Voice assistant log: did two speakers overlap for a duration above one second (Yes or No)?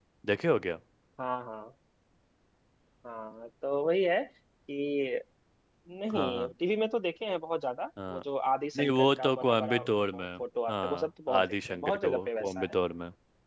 Yes